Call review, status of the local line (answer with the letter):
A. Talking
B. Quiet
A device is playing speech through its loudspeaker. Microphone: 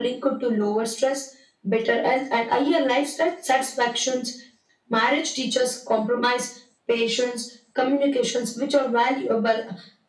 B